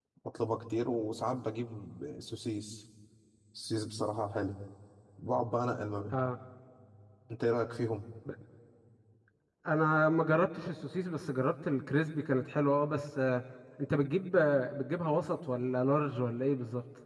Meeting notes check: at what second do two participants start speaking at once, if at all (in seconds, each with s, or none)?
none